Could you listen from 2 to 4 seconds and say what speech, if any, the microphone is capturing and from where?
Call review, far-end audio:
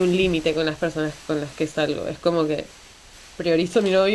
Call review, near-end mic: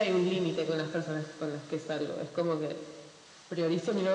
echo only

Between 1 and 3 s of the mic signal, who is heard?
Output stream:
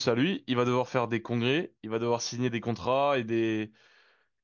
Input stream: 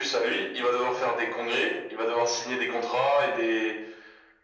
echo only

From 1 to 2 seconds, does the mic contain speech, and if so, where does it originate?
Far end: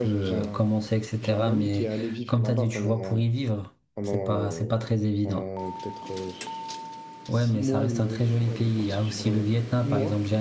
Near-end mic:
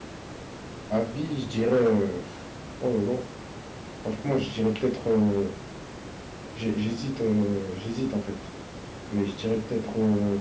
user only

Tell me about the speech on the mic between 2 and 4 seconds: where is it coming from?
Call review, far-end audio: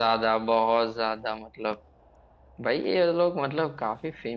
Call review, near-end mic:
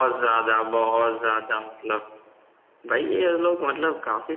echo only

